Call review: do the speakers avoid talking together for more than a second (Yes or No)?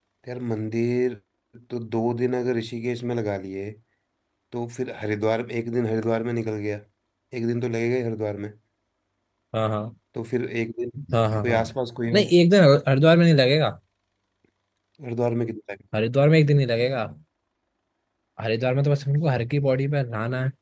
Yes